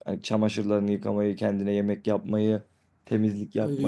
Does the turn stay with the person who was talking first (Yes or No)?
No